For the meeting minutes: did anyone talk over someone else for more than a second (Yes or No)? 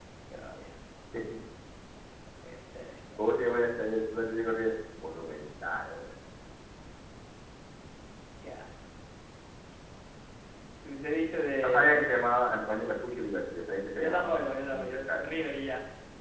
Yes